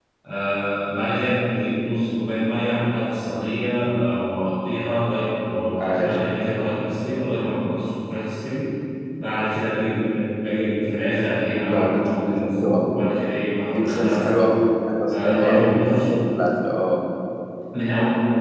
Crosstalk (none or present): present